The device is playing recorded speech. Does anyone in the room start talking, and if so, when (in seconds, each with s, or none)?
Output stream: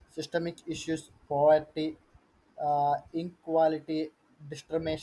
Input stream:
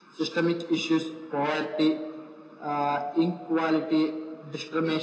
none